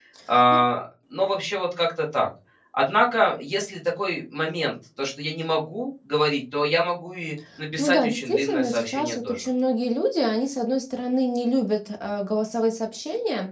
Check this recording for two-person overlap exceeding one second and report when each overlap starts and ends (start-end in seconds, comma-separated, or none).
7.8-9.5